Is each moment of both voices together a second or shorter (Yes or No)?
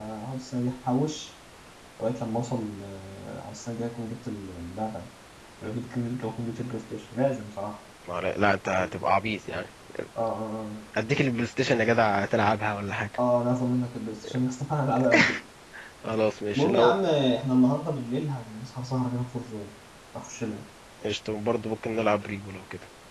Yes